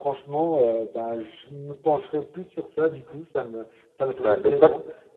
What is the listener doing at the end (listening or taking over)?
taking over